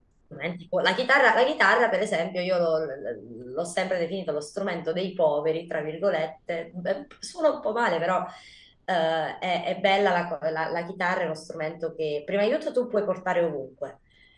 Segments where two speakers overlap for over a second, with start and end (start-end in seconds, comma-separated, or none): none